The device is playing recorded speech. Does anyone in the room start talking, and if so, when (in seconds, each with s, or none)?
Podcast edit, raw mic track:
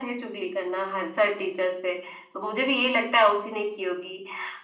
none